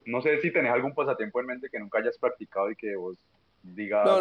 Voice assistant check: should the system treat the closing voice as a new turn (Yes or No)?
Yes